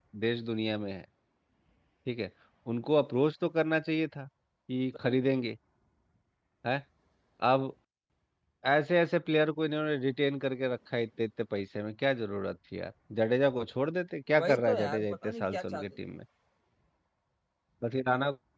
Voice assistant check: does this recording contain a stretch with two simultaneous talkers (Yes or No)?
Yes